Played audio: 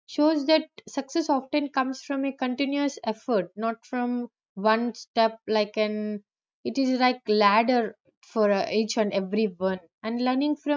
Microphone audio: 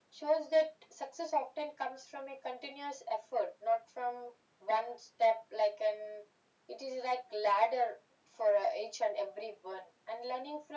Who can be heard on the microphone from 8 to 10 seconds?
echo only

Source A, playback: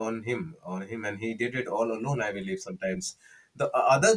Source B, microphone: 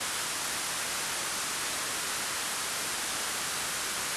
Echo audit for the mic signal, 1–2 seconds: neither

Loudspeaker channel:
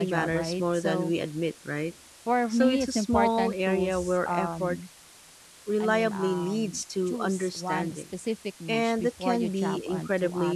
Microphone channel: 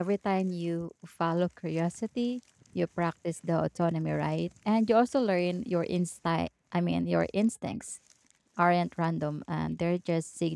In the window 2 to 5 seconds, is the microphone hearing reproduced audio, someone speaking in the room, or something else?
user only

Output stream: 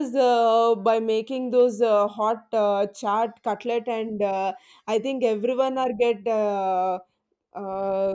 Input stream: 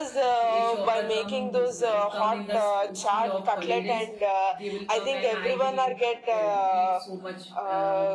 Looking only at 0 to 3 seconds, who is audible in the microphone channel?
both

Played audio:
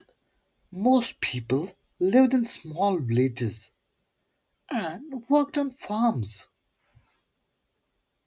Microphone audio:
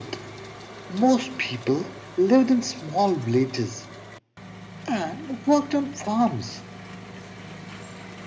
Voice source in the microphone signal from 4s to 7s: echo only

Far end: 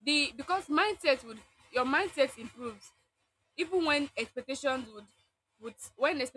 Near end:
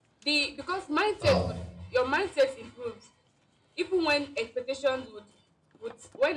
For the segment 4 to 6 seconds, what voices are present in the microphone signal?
echo only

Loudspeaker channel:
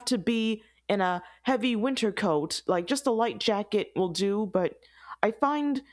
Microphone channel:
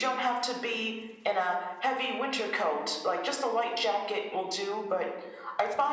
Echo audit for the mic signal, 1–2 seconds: echo only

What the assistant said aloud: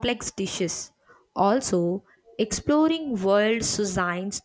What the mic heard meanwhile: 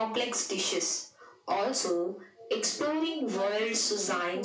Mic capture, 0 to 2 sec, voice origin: echo only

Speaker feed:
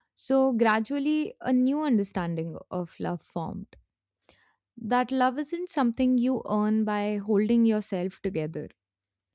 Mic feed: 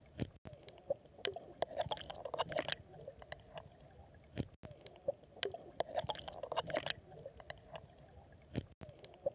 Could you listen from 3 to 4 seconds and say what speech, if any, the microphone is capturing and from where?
neither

